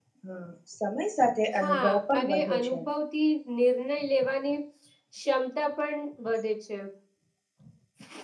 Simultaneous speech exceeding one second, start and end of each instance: 1.6-2.8

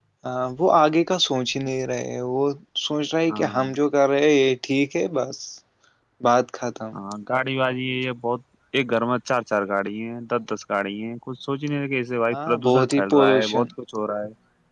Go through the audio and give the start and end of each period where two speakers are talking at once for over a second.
12.3-13.6

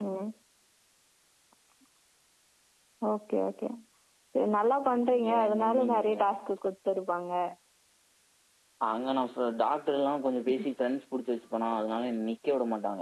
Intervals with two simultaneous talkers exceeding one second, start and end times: 4.9-6.3

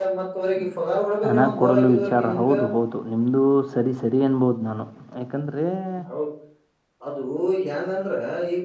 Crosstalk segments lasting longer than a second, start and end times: 1.3-2.5

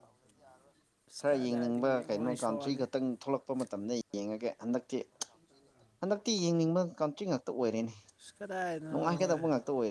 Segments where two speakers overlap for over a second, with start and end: 1.3-2.8

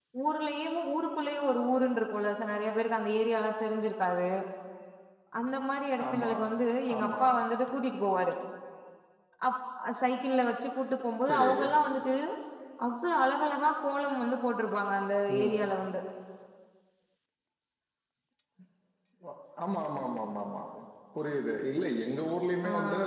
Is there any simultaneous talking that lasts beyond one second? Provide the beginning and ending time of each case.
none

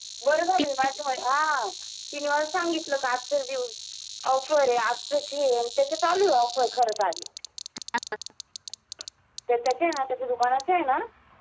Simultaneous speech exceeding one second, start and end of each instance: none

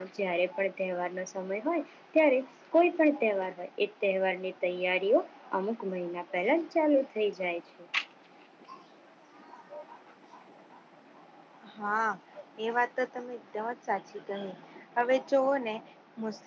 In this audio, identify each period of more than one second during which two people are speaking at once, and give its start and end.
none

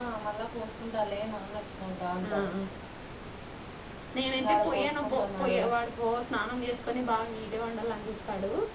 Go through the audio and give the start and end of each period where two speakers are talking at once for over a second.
4.4-5.7

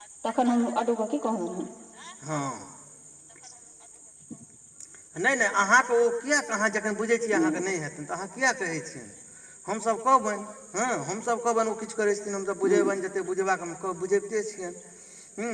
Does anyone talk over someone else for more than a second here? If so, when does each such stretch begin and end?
none

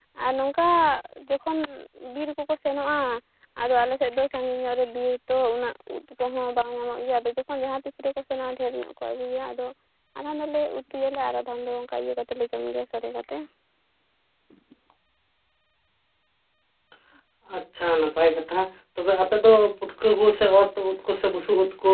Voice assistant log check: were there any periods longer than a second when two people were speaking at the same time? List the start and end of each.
none

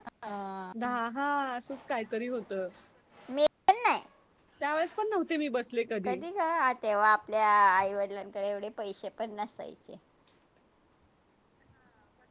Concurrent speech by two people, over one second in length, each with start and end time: none

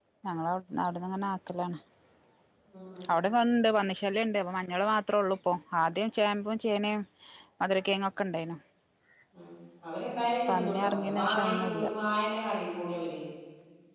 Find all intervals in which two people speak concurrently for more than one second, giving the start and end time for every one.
10.5-11.9

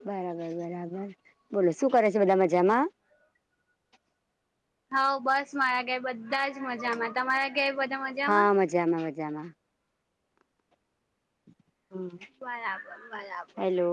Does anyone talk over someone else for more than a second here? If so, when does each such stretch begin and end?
none

